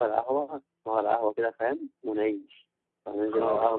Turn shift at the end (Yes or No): Yes